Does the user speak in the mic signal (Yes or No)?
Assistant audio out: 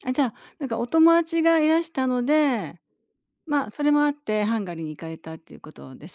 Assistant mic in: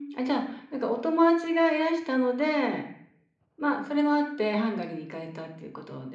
No